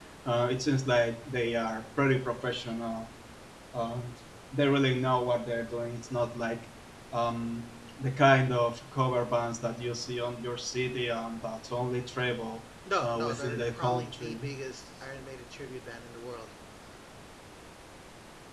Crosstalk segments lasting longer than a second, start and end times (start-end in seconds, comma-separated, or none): 13.0-14.5